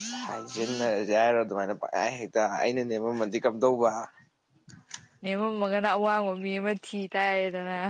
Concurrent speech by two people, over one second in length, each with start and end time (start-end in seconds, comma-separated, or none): none